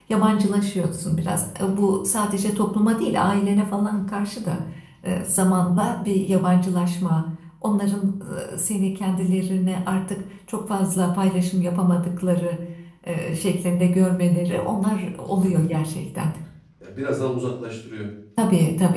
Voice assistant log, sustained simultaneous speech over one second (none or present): none